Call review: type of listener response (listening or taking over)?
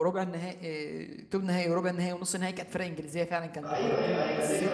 taking over